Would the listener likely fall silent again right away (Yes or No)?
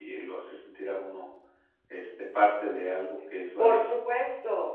No